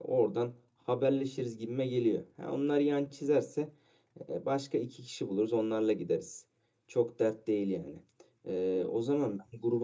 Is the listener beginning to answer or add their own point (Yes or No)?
No